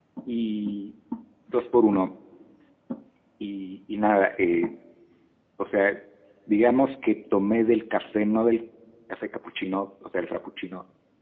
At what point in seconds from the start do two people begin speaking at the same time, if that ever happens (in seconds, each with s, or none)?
none